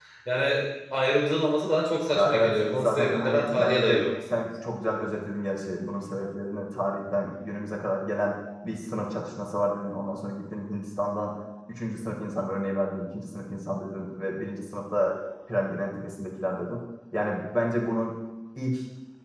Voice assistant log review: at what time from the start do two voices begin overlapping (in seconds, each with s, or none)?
2.1 s